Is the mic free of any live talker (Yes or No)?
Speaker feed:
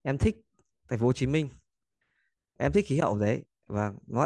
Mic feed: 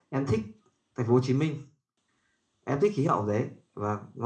Yes